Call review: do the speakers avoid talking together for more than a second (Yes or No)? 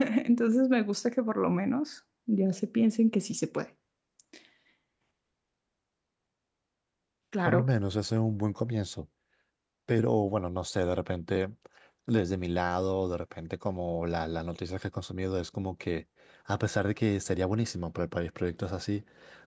Yes